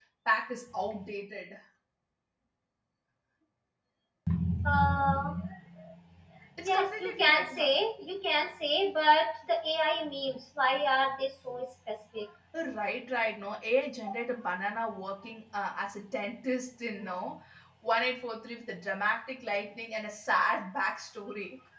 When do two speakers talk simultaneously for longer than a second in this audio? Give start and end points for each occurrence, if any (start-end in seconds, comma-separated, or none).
6.6-7.8